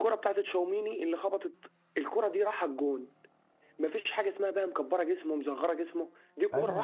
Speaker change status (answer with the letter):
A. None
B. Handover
B